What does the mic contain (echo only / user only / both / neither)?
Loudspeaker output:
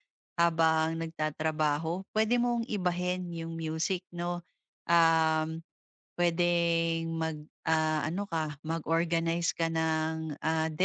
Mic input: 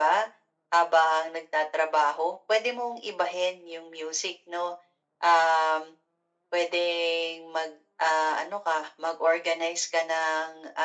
echo only